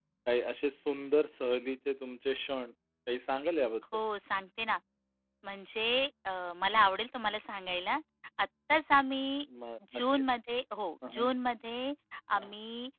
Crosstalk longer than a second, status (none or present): none